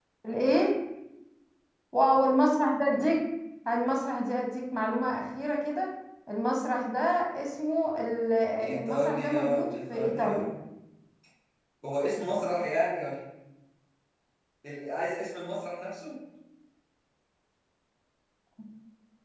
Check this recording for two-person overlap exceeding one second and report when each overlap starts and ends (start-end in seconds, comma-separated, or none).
8.8-10.4